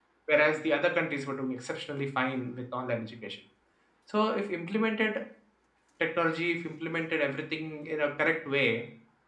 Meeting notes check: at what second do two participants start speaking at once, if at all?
none

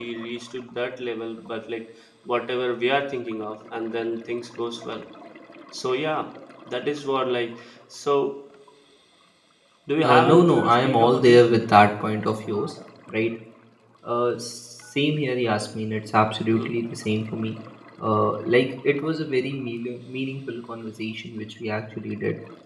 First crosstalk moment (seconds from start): 10.1 s

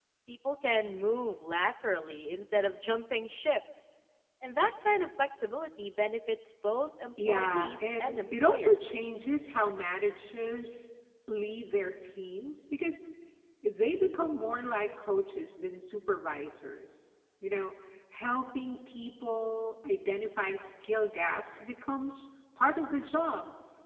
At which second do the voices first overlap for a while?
7.2 s

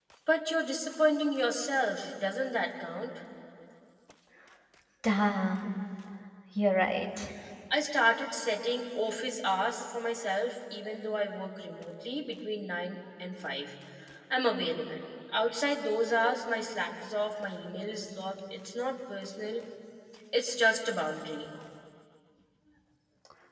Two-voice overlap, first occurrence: none

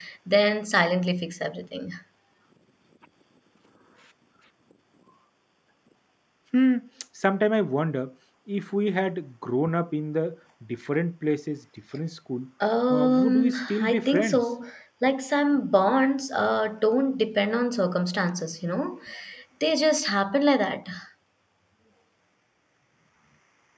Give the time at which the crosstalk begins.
12.9 s

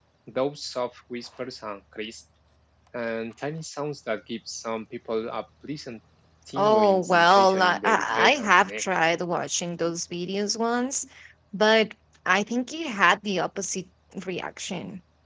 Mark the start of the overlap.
6.6 s

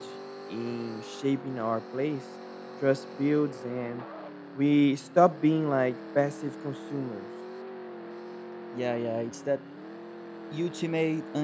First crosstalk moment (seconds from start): none

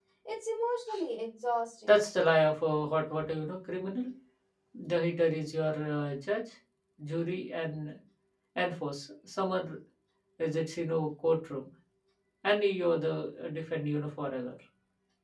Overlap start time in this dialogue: none

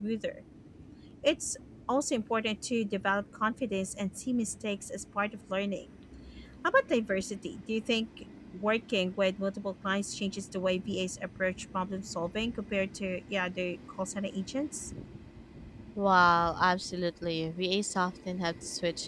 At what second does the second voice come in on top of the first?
none

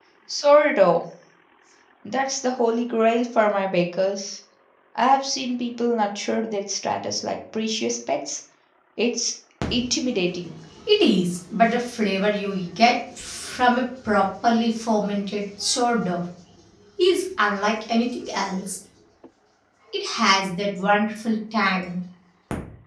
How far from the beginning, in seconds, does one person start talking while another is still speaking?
none

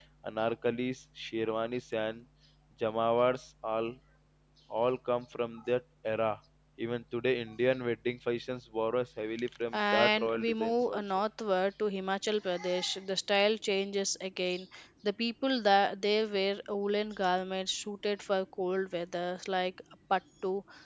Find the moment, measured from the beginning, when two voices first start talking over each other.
9.5 s

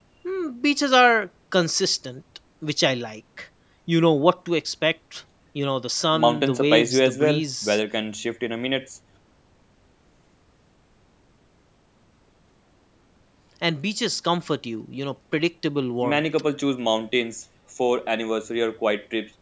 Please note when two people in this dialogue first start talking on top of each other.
6.1 s

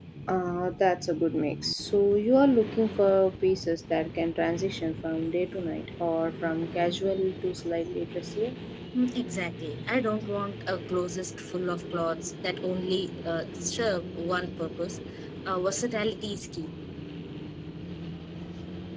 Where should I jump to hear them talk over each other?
none

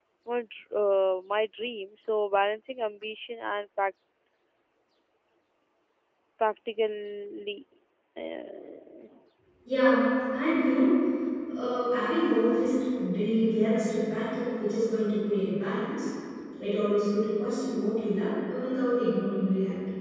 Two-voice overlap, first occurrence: none

